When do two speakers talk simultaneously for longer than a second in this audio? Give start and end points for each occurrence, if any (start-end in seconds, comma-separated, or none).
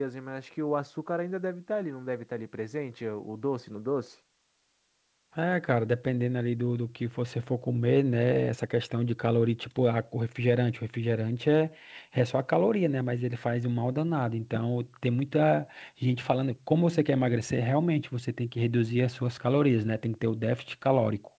none